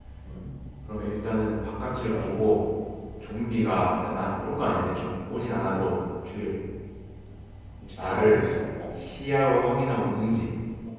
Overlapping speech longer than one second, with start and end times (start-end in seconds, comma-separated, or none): none